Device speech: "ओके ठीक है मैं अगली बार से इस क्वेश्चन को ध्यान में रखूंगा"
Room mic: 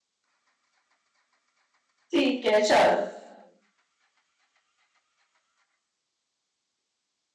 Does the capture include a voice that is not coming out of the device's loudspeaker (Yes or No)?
Yes